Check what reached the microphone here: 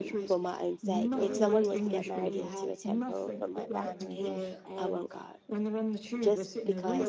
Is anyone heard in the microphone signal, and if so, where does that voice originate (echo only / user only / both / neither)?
both